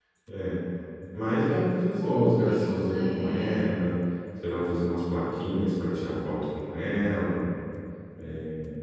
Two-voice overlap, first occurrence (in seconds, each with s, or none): 2.0 s